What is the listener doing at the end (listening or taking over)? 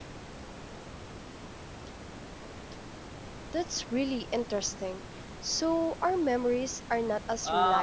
taking over